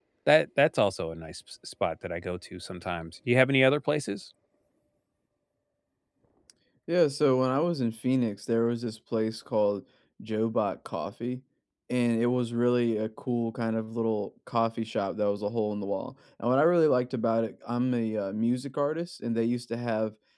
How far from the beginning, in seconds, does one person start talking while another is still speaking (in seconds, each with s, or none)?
none